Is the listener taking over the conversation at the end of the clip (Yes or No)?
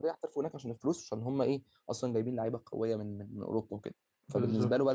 No